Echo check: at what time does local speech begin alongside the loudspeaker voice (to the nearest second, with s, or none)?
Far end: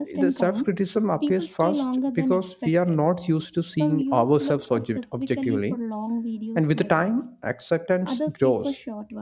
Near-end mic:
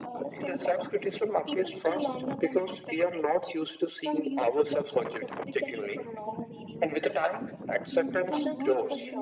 8 s